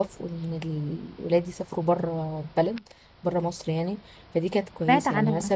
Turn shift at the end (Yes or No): No